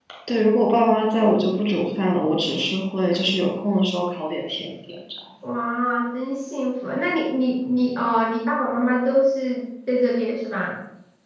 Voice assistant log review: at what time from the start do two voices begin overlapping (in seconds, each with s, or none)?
none